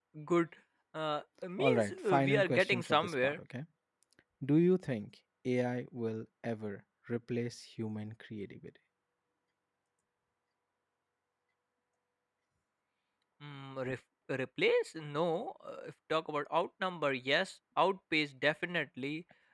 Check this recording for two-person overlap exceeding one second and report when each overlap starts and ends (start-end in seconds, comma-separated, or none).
1.6-3.4